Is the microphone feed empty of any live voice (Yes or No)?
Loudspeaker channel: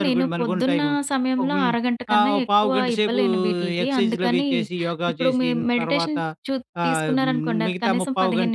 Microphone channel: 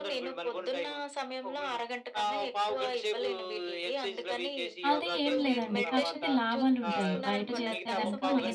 No